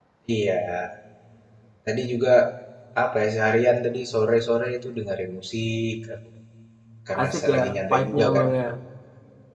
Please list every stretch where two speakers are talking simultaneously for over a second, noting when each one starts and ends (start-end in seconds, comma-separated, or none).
7.1-8.5